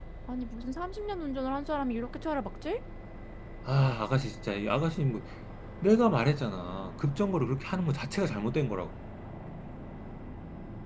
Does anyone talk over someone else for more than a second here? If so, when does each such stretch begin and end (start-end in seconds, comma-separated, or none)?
none